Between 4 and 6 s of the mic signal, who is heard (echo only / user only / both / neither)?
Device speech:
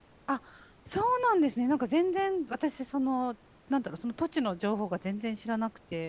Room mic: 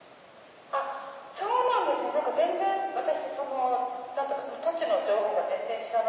echo only